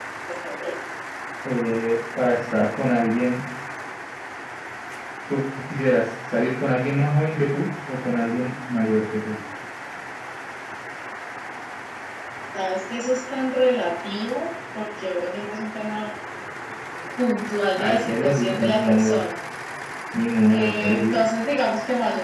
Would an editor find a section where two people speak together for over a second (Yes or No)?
Yes